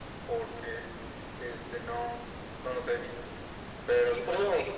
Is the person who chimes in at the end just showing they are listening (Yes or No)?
No